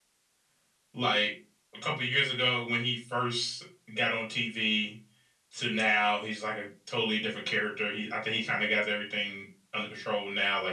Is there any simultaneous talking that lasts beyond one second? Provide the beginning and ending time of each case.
none

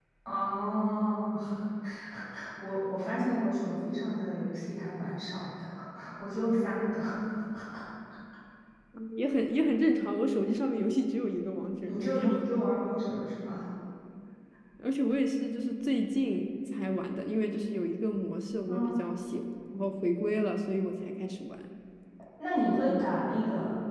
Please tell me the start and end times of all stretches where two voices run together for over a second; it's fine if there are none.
none

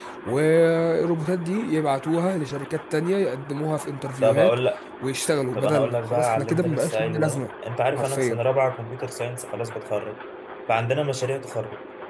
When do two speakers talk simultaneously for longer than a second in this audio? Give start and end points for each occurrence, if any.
5.5-7.4

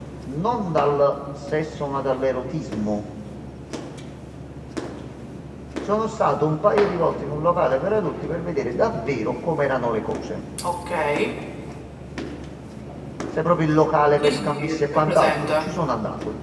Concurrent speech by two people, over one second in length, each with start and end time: 14.2-15.7

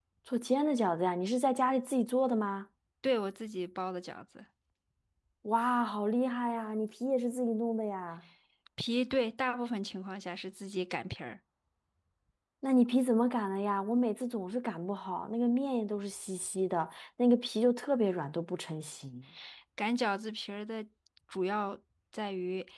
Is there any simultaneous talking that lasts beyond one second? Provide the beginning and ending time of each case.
none

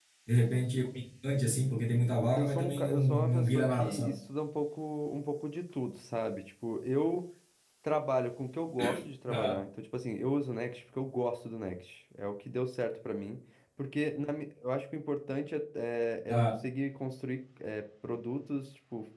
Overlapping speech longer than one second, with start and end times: 2.4-4.1

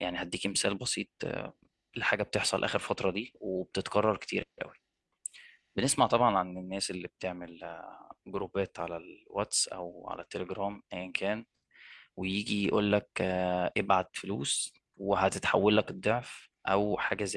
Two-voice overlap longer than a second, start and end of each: none

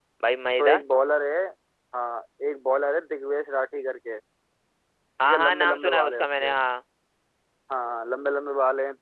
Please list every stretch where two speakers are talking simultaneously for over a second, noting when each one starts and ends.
5.2-6.5

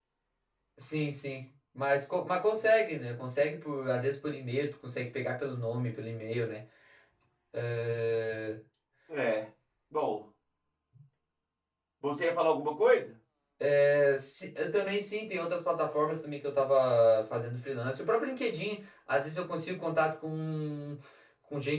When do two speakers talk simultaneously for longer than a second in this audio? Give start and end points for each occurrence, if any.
none

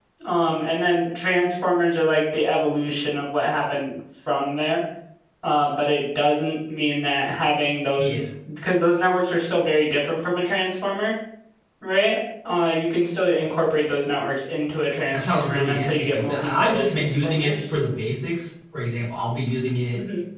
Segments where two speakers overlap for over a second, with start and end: 15.1-17.5

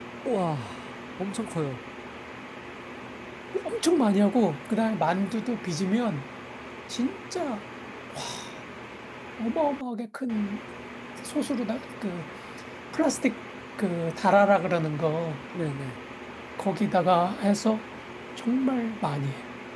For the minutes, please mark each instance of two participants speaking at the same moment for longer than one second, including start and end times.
none

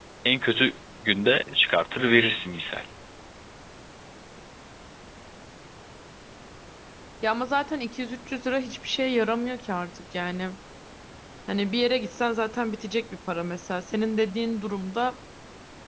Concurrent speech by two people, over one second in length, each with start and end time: none

